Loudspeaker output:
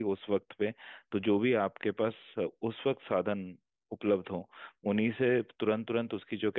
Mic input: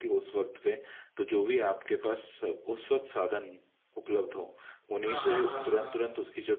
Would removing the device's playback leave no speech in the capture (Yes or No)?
No